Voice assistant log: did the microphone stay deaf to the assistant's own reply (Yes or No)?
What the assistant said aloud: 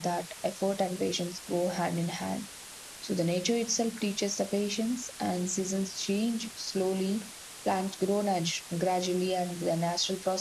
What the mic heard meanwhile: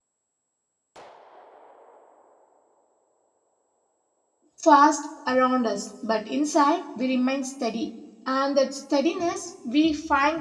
Yes